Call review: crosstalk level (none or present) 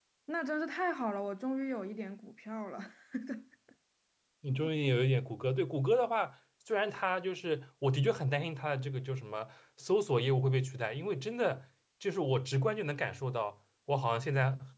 none